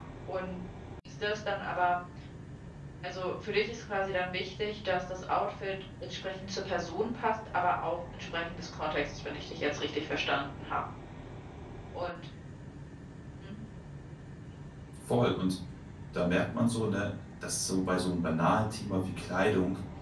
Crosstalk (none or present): none